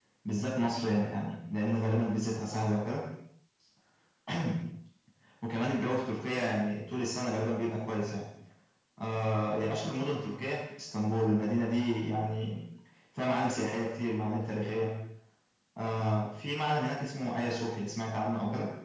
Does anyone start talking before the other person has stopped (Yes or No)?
No